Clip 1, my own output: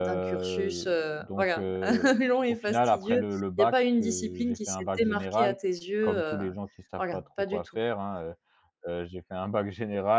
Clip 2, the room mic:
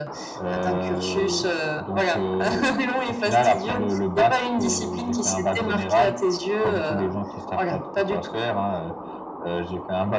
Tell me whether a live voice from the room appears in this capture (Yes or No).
No